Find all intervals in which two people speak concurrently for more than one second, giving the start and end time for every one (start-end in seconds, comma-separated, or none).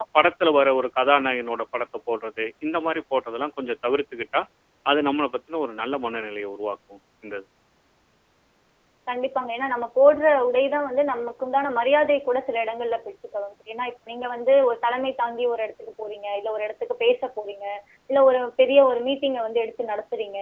none